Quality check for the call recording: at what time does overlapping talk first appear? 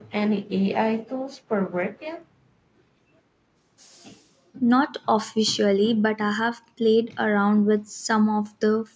none

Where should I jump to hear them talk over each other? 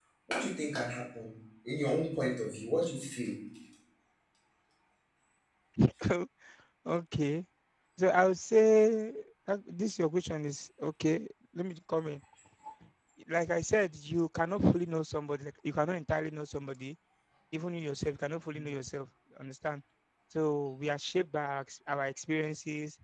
none

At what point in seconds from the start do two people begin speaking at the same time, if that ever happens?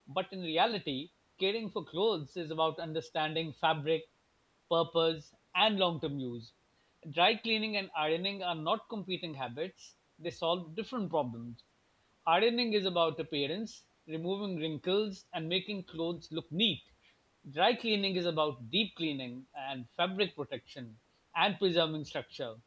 none

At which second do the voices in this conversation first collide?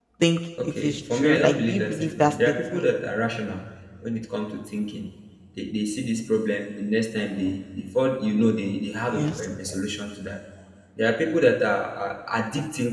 0.6 s

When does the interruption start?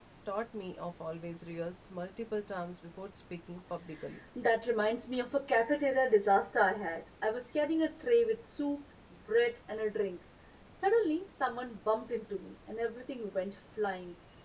none

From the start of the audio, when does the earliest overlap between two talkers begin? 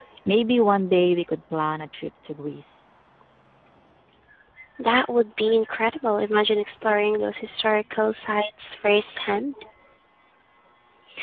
none

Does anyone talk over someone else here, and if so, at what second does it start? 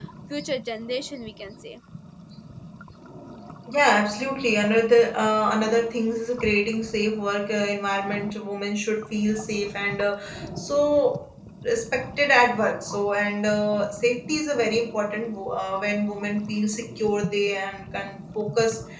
none

